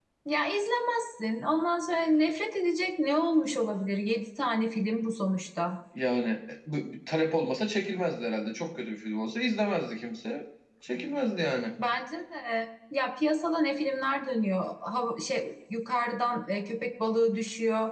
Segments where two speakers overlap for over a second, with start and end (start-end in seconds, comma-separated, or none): none